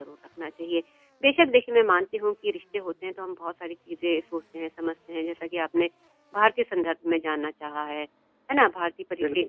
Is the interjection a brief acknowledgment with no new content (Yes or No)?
Yes